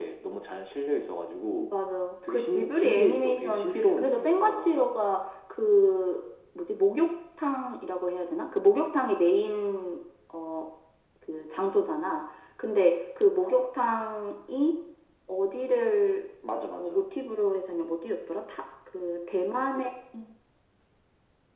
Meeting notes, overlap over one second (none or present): present